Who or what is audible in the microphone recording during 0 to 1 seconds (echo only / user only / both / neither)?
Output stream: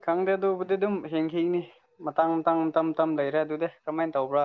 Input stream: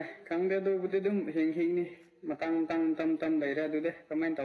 echo only